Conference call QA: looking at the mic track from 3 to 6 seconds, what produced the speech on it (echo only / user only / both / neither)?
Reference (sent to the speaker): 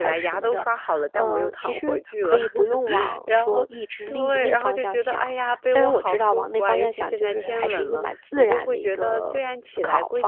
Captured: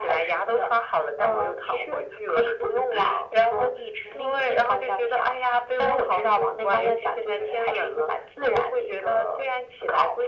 echo only